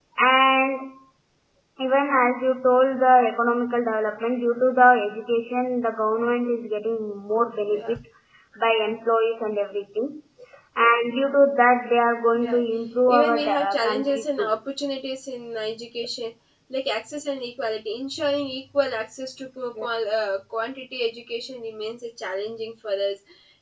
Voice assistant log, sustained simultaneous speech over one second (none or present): present